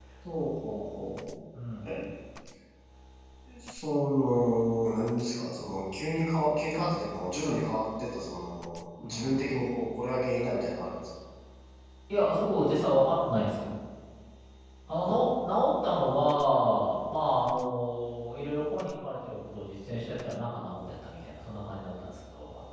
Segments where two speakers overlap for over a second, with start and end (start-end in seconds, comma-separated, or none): none